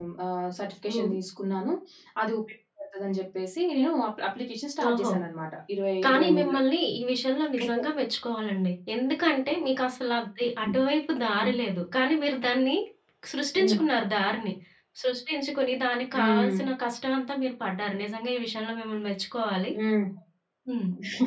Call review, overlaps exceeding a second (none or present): none